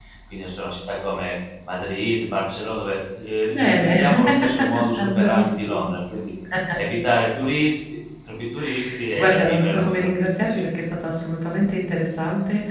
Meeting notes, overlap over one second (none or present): present